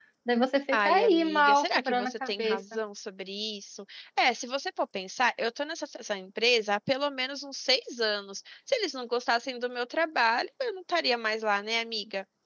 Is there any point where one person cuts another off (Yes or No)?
Yes